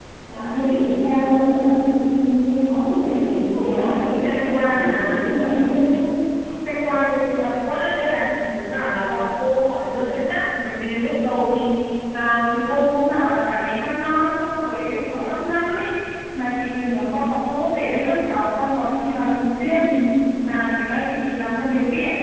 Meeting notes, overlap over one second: present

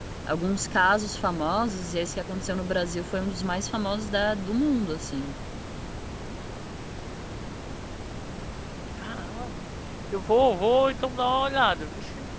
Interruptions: none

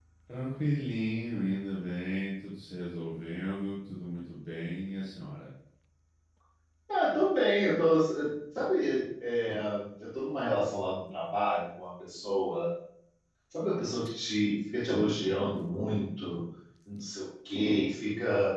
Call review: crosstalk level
none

